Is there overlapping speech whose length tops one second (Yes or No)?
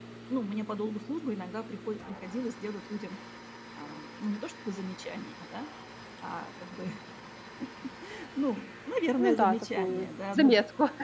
Yes